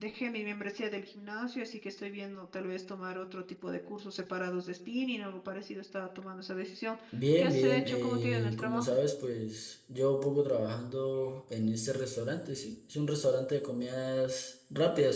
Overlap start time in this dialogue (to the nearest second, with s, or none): 7 s